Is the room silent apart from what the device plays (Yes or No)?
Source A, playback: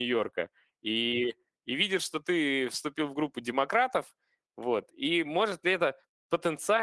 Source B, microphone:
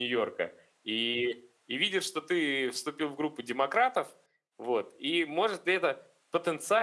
Yes